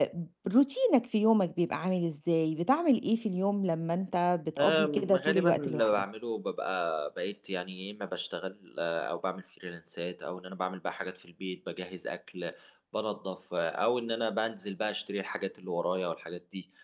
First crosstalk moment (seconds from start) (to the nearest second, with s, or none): 5 s